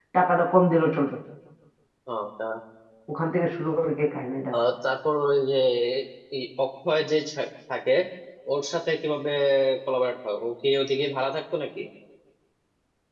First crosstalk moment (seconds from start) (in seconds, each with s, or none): none